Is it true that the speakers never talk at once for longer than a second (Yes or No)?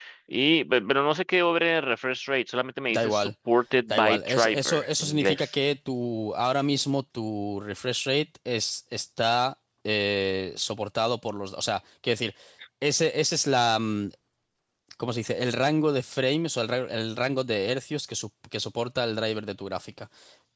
No